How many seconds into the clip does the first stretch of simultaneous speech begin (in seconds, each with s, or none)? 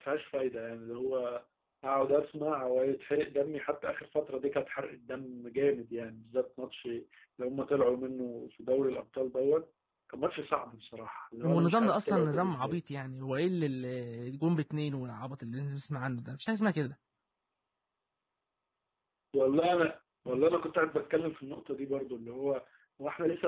11.4 s